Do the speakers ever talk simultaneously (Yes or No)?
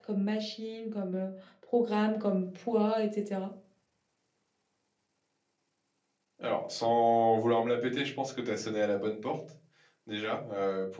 No